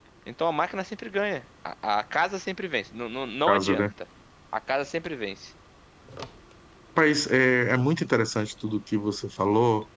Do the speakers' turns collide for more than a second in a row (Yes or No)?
No